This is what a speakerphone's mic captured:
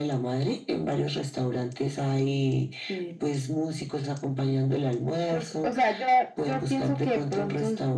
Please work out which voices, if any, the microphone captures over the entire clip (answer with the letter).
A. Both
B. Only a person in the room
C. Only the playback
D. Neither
C